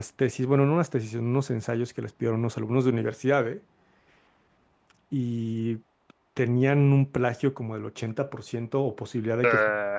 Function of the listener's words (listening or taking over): listening